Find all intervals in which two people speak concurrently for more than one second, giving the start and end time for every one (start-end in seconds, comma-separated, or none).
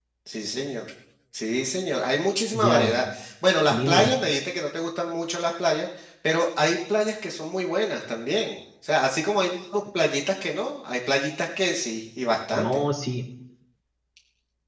none